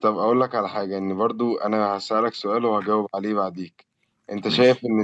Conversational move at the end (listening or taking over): listening